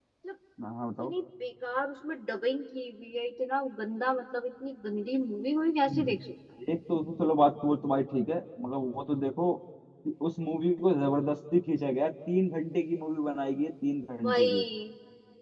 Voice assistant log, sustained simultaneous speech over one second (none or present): none